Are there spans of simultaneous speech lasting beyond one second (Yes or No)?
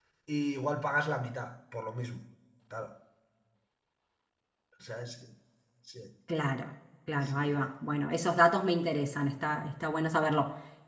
No